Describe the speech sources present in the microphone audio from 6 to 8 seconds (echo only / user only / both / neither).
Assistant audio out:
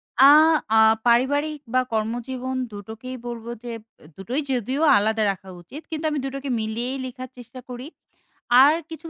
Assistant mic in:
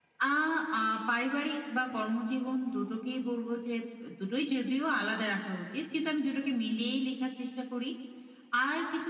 echo only